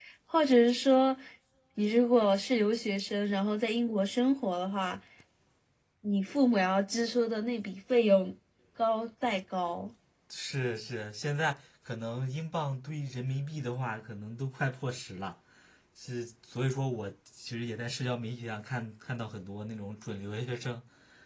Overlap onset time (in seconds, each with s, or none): none